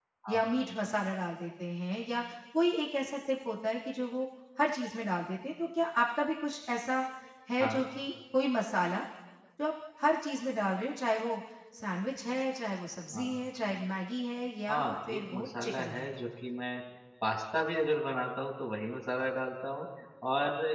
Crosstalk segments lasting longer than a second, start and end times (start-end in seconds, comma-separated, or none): 14.7-16.1